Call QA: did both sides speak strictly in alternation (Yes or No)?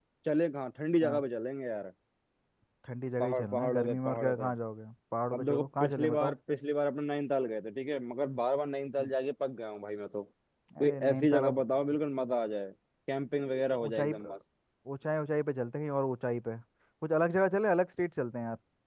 No